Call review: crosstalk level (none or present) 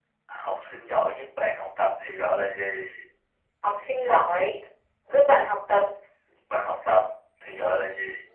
none